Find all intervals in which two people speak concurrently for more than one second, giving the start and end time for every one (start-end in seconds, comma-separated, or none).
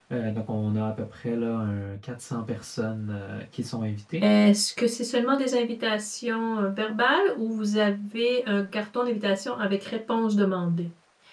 none